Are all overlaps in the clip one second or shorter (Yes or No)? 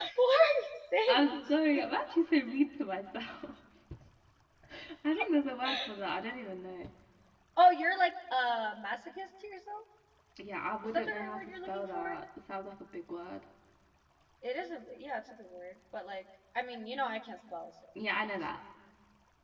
No